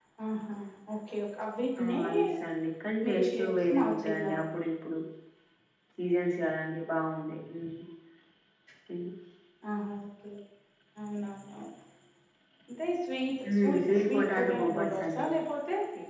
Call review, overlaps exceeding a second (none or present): present